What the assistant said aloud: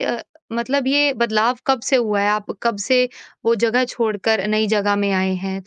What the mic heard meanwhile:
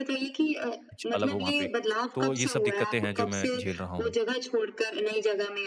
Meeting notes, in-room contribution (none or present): present